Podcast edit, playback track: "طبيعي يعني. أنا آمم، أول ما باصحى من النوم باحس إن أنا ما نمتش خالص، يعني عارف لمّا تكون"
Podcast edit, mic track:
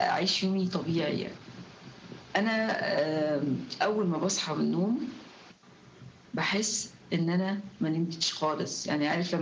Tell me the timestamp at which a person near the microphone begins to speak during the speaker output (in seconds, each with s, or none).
none